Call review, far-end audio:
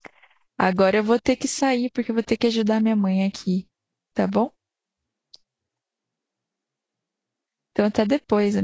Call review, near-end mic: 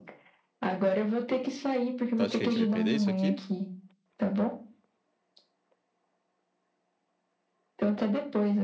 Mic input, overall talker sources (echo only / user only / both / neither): both